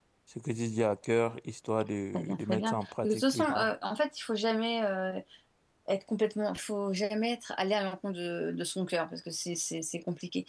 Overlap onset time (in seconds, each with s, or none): 2.1 s